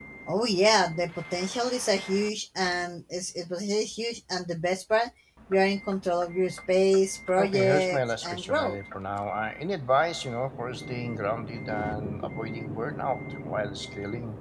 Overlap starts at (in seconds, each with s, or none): 7.4 s